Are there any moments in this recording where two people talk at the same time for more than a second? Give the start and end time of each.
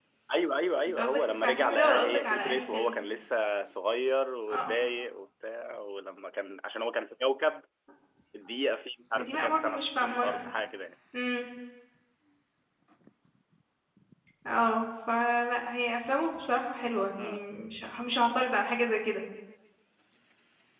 0.9-2.9, 9.2-10.5

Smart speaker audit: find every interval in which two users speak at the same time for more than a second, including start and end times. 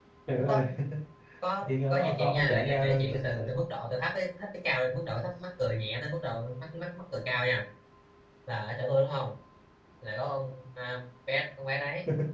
1.9-3.5

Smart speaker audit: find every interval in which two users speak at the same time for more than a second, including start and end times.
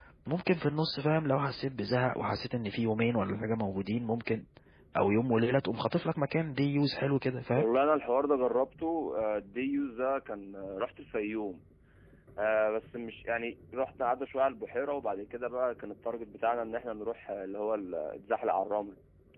none

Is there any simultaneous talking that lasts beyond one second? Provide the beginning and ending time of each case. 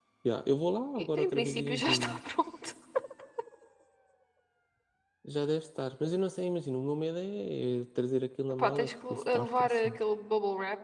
1.0-2.2, 8.5-10.0

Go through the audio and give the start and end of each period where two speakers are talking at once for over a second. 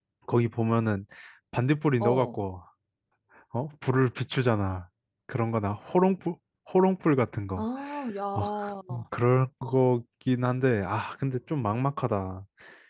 none

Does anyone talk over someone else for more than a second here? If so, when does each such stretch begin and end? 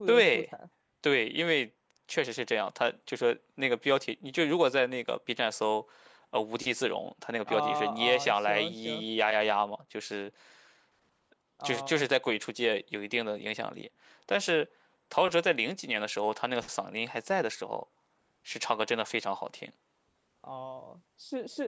7.5-9.0

